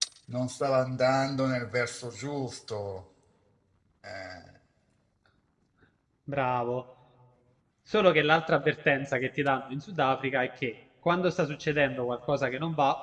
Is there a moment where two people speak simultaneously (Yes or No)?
No